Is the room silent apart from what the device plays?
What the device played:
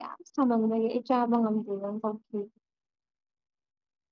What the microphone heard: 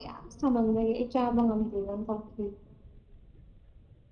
Yes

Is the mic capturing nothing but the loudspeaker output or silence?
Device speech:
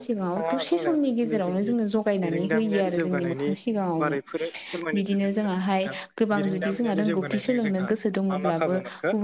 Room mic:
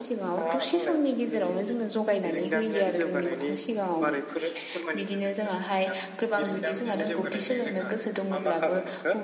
Yes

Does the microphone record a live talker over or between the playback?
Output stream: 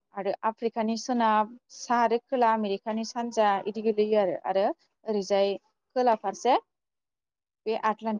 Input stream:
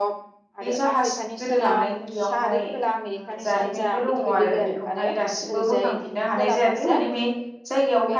Yes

